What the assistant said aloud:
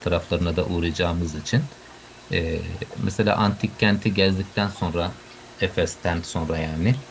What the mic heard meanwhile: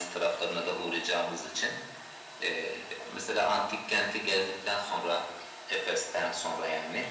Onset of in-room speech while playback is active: none

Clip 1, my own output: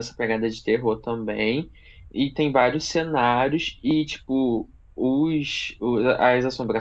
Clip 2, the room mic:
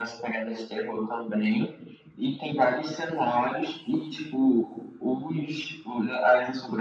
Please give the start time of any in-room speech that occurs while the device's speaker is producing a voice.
none

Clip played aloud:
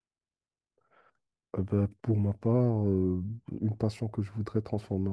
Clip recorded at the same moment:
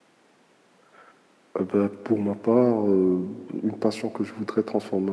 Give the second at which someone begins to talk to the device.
none

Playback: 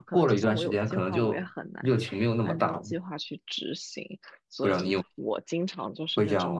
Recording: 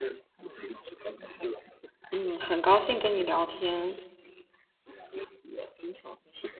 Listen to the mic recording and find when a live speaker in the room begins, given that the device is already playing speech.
2.1 s

